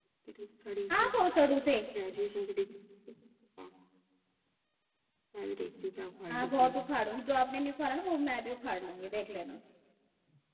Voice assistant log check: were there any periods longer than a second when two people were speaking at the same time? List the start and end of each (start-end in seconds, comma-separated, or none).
none